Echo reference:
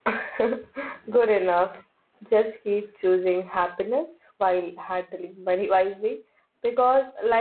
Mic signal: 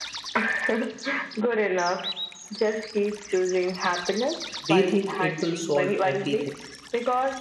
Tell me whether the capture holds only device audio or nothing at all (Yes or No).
No